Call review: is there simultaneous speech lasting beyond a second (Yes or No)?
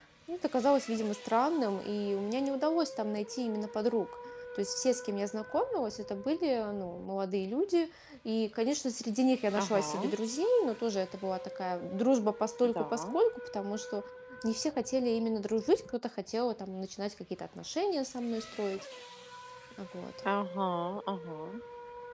No